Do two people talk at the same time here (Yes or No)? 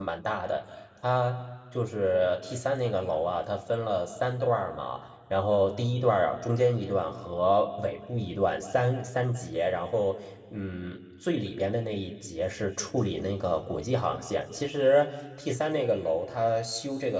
No